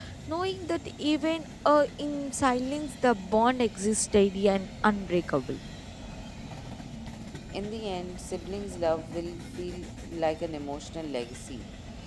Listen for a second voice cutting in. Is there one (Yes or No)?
No